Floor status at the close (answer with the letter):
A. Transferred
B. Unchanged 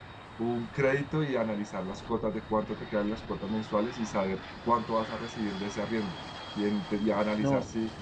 B